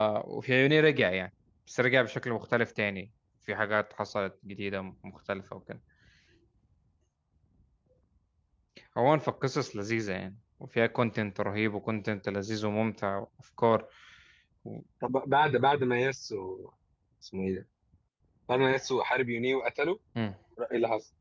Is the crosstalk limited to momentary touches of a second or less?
Yes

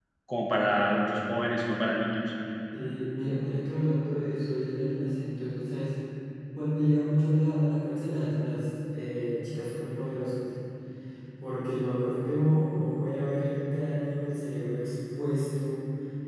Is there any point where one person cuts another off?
No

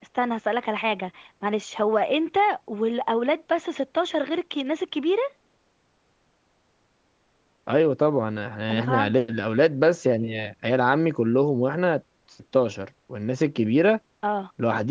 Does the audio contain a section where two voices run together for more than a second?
No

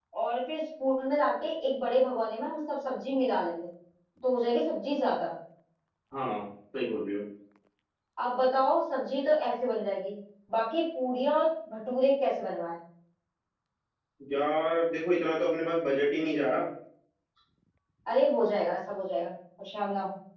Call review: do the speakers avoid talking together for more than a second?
Yes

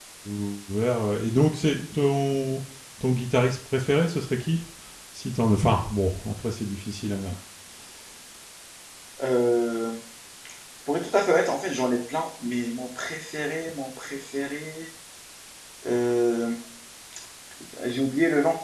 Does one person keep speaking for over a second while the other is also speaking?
No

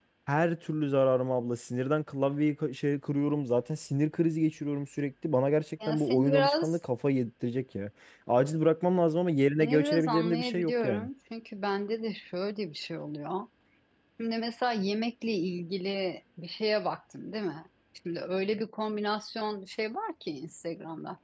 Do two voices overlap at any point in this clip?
Yes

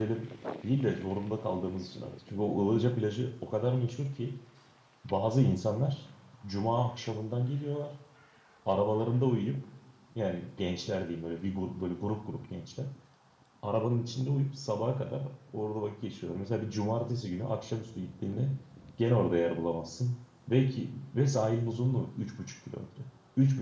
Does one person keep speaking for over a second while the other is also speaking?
No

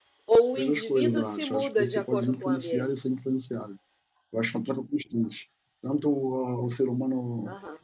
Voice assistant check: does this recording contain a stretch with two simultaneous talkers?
Yes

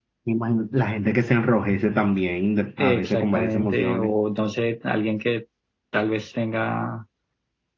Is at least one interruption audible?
Yes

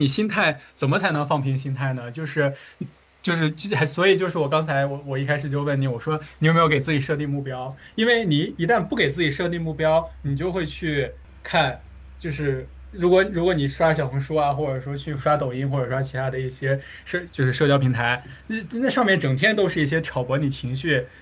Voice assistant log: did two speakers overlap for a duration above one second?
No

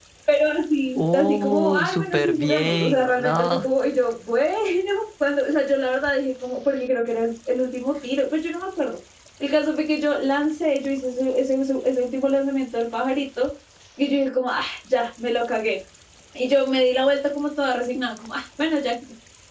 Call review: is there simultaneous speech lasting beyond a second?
Yes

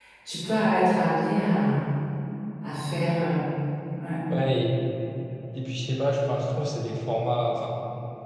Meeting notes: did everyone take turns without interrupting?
Yes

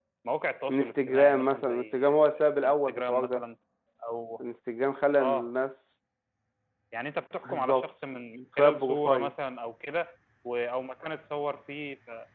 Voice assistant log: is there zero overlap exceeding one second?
No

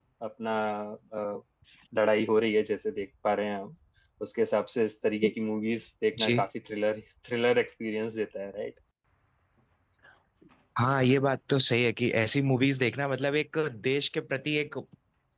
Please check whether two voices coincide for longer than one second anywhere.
No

